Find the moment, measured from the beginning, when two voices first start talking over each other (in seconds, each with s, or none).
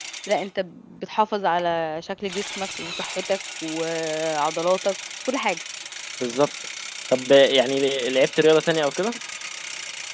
none